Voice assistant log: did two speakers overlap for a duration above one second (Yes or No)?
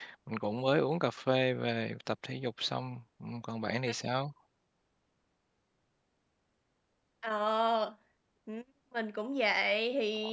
No